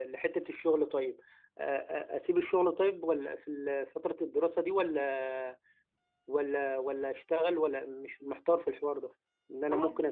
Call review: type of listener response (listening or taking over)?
listening